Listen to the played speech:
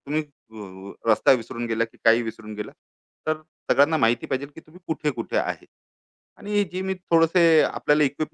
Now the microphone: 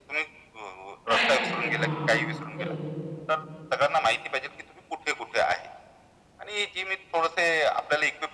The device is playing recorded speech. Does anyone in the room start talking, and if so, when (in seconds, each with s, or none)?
1.1 s